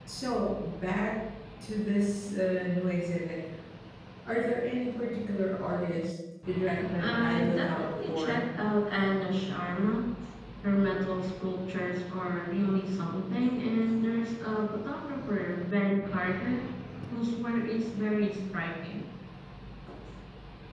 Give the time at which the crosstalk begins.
7 s

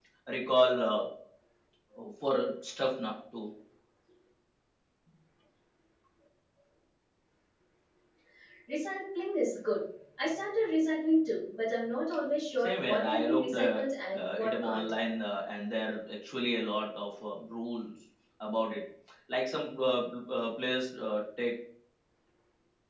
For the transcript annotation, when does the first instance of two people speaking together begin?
13 s

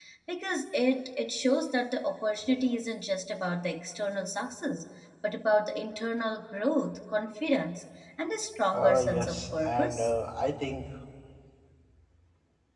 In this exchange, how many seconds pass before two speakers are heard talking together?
9 s

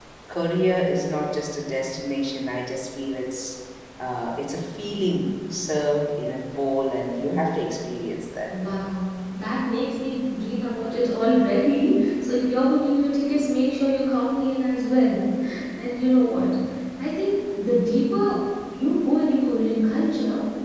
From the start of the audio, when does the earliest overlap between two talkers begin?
none

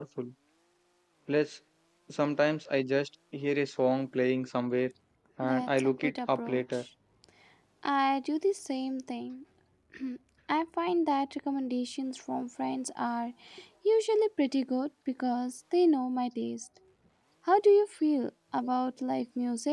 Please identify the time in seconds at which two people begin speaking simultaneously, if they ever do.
5 s

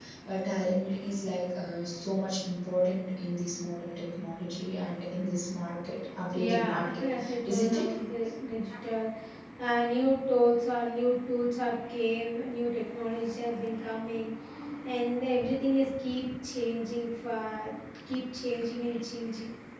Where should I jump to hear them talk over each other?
6 s

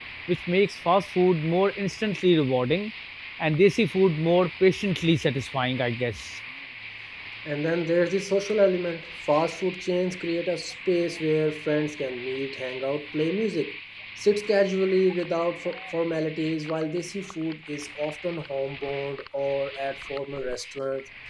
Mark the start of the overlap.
none

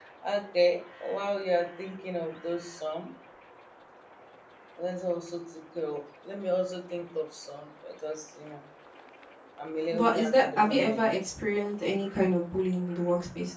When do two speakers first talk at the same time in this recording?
10 s

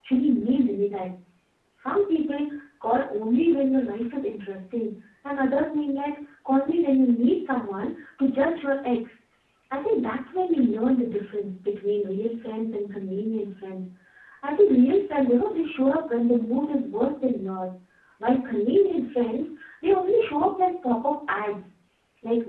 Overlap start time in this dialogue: none

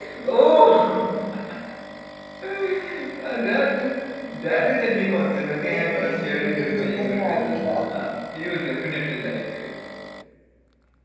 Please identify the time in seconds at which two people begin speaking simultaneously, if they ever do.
6 s

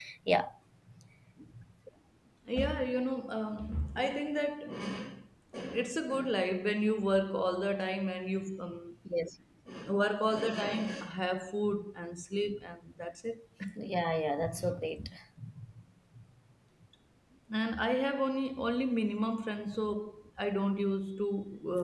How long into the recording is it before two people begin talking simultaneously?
none

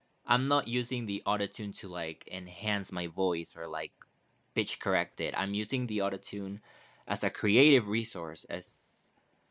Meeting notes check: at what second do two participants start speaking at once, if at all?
none

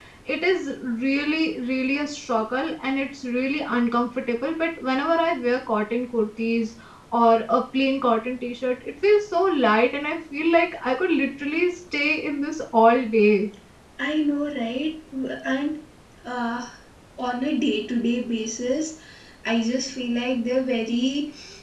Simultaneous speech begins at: none

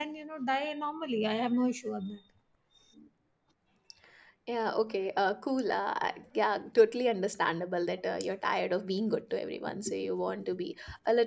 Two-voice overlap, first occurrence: none

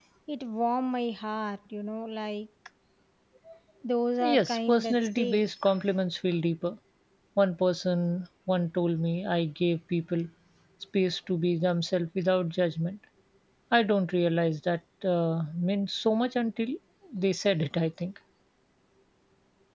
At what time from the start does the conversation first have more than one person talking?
4 s

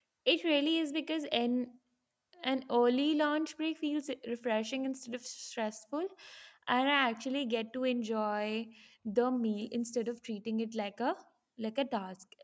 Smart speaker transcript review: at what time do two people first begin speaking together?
none

